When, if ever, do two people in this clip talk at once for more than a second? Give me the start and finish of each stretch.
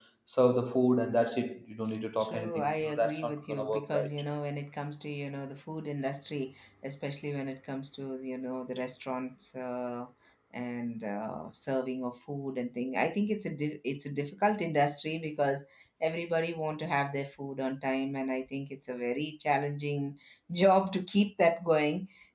2.2-4.1

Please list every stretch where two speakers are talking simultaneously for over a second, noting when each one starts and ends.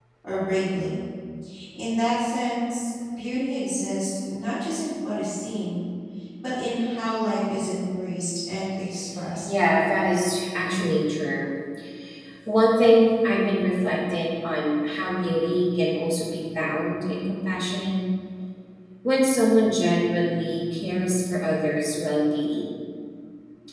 none

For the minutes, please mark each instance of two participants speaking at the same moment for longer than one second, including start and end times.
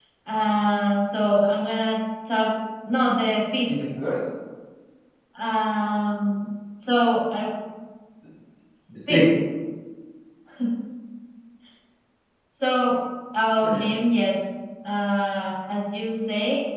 none

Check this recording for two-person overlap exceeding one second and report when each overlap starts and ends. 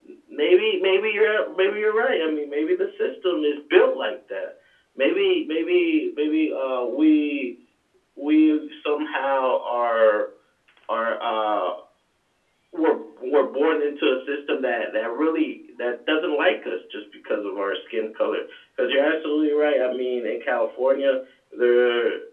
none

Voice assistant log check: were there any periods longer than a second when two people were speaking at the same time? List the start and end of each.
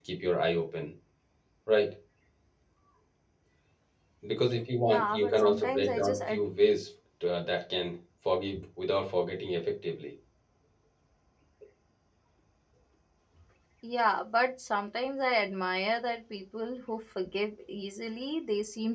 4.8-6.2

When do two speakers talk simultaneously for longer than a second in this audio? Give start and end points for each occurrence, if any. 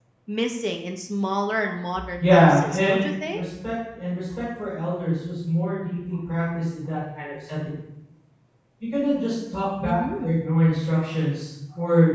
2.2-3.4

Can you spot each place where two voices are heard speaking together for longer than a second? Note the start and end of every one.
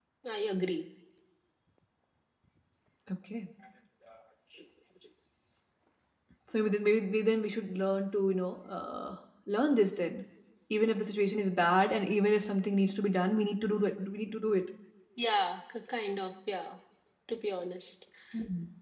none

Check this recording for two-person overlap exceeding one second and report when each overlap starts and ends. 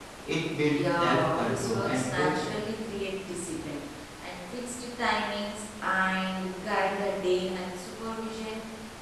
1.0-2.5

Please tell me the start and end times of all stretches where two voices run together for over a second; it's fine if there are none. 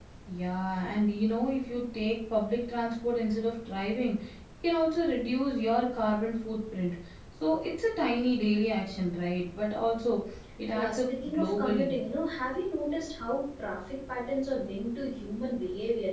10.7-12.0

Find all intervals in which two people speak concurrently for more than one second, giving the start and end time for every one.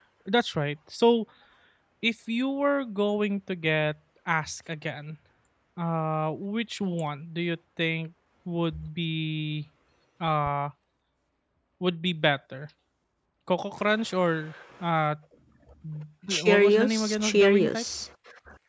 16.3-17.8

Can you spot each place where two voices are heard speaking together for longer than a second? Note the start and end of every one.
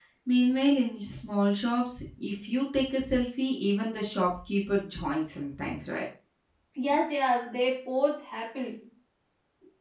none

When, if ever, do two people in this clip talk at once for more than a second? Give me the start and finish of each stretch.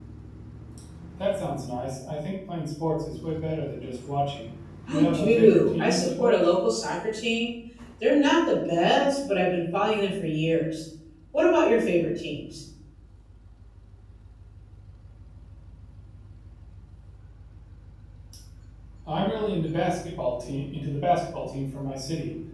4.9-6.5

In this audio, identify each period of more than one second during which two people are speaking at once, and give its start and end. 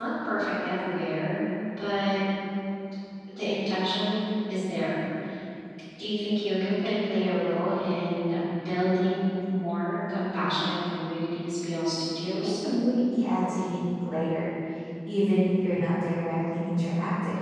none

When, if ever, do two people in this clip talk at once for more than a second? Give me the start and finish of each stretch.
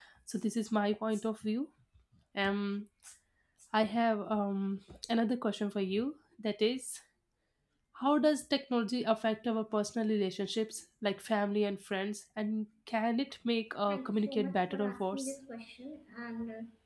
13.9-15.3

